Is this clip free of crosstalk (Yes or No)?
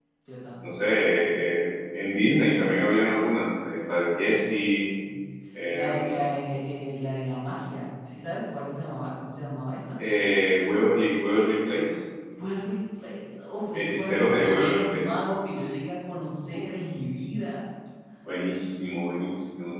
No